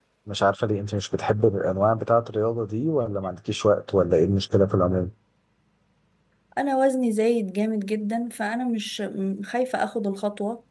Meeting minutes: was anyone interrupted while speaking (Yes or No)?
No